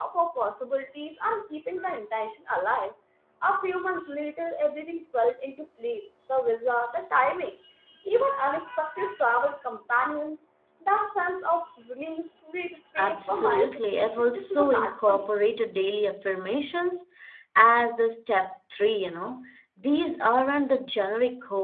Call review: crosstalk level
present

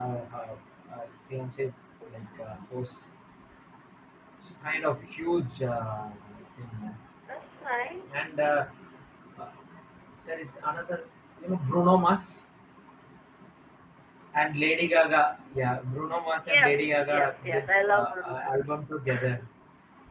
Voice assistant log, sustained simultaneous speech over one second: present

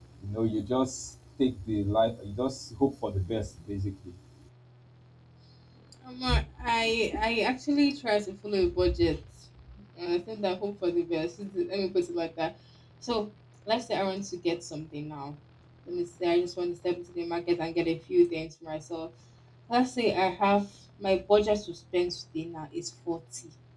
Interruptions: none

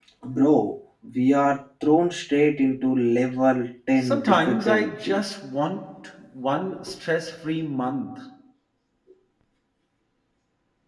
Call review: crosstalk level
present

